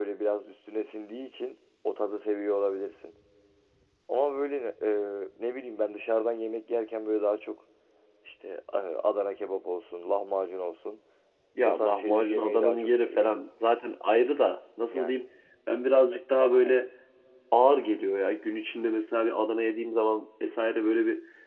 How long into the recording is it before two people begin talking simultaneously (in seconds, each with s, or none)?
11.6 s